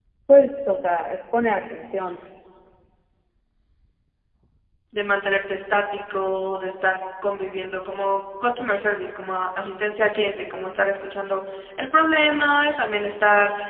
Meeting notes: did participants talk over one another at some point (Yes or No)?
No